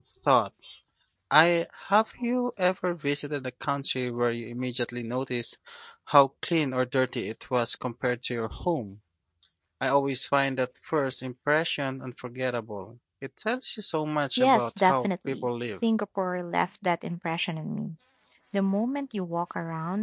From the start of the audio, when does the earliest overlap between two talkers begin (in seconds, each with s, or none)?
14.4 s